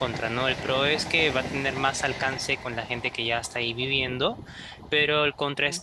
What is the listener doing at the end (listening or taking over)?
listening